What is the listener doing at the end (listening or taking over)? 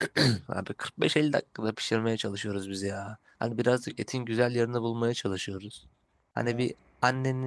listening